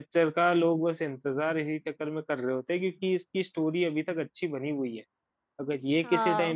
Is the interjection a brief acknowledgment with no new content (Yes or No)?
Yes